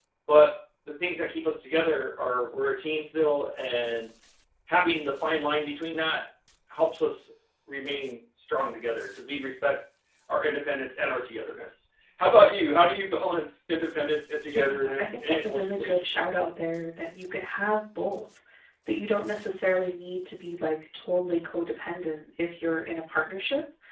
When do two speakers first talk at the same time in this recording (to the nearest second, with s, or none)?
14 s